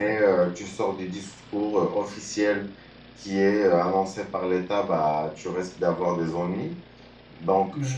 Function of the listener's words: listening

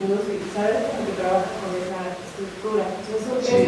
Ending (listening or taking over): taking over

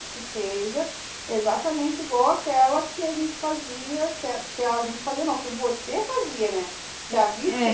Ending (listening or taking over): listening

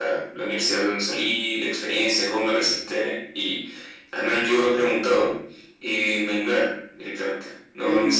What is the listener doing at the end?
listening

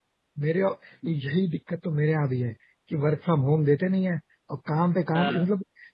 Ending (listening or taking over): listening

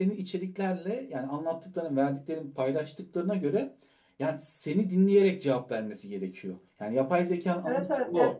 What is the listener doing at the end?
taking over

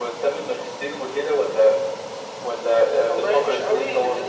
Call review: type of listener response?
taking over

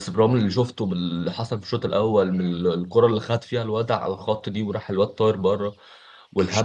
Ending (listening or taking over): listening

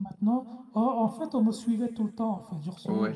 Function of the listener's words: listening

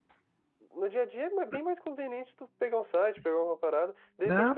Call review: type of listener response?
listening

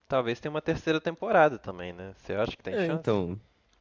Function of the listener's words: taking over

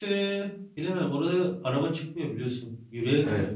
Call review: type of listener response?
taking over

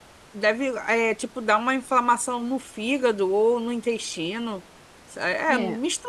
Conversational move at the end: listening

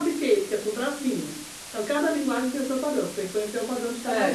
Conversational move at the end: taking over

